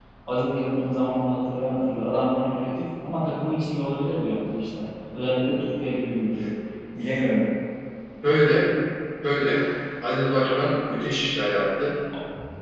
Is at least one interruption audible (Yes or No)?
No